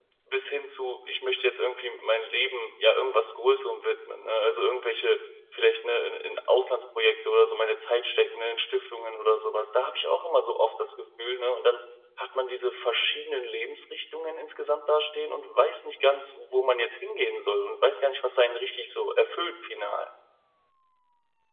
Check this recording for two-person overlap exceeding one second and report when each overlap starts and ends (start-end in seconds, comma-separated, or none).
none